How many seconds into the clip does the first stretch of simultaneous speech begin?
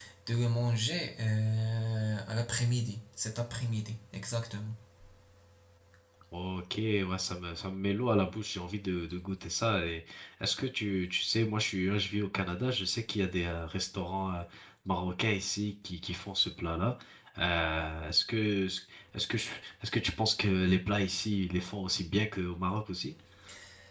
none

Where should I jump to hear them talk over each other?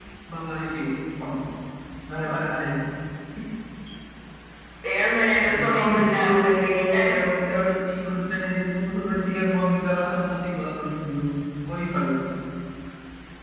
5.6 s

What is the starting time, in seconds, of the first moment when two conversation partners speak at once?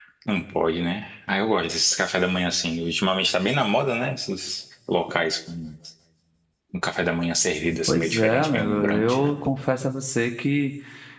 7.9 s

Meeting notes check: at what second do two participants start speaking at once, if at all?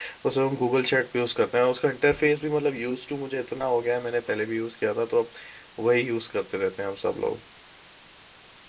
none

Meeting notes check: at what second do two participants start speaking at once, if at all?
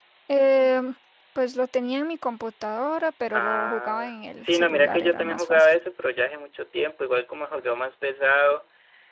3.3 s

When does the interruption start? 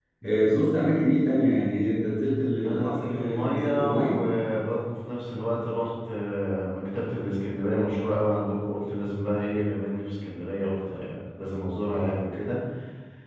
2.6 s

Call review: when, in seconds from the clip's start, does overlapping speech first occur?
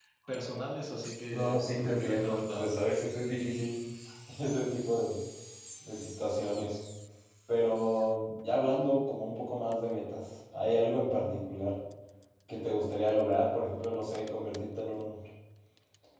1.3 s

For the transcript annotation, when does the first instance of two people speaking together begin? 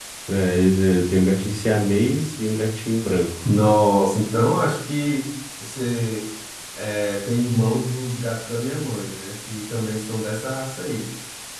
none

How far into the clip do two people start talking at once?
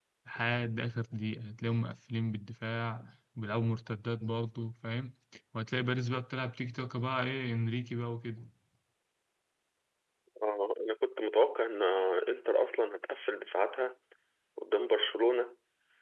none

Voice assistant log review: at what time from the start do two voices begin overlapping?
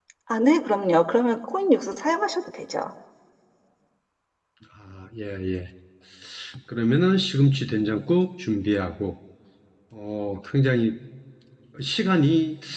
none

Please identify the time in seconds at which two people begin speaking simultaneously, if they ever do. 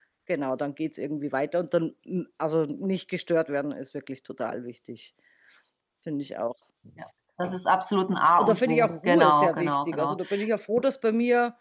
8.4 s

